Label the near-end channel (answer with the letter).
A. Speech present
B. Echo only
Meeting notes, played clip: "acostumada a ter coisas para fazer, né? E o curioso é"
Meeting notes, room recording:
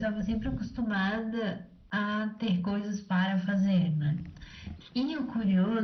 B